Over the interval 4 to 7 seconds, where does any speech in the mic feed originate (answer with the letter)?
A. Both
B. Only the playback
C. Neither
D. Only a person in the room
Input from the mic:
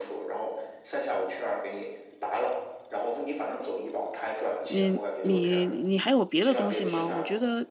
A